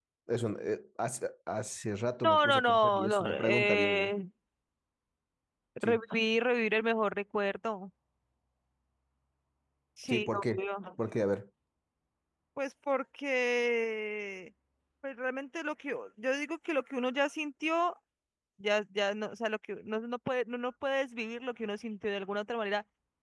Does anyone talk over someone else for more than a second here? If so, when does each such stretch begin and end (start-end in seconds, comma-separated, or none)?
2.2-4.1